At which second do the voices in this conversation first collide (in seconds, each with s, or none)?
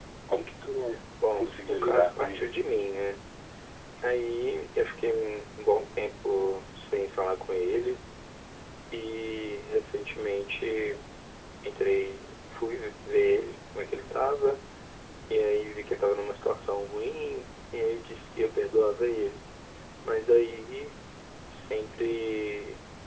1.2 s